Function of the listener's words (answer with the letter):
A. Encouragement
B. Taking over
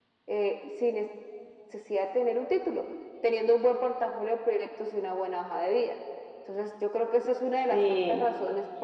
A